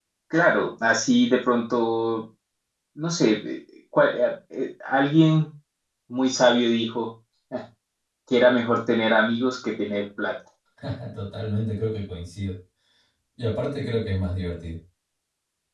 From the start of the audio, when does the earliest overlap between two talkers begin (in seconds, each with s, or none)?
none